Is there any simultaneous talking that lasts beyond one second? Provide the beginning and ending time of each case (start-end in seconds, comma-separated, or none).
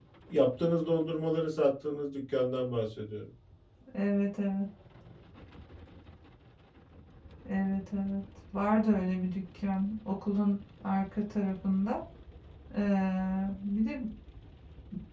none